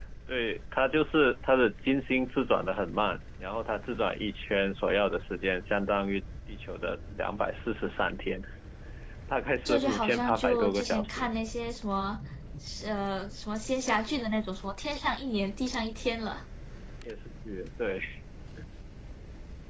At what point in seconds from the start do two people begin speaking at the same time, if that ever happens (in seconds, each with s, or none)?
9.6 s